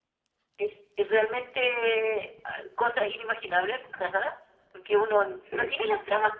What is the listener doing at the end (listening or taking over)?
listening